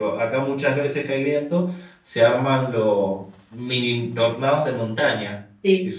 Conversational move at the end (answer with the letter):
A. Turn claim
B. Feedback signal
B